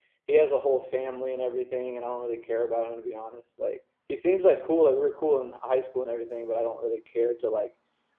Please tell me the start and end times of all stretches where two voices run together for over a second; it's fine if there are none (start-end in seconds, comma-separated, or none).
none